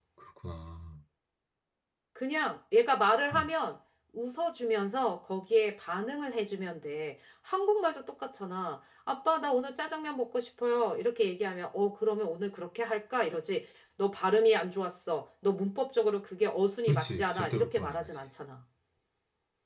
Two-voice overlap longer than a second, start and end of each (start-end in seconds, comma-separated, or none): 16.9-18.1